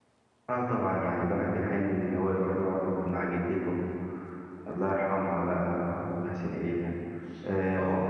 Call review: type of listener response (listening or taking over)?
taking over